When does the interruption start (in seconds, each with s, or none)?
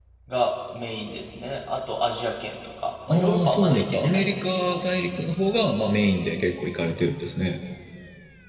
3.1 s